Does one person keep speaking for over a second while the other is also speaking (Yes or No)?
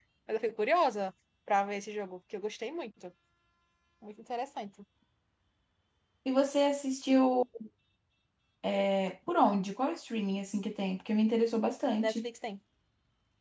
No